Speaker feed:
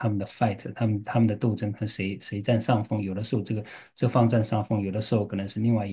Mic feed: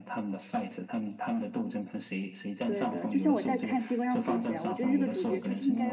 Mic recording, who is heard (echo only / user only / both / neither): both